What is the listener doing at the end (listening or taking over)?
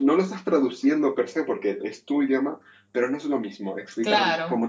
listening